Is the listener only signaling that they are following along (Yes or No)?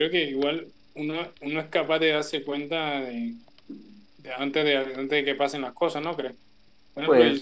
Yes